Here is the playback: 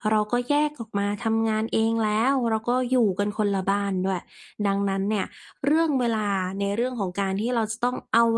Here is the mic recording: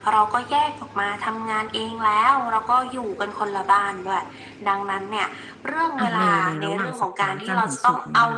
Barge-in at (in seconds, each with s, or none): 6.0 s